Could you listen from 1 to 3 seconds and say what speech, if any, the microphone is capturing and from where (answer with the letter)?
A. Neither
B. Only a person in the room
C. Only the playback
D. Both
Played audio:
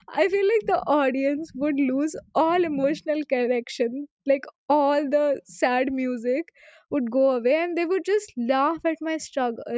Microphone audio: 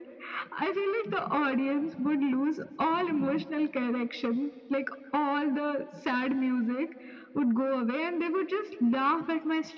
C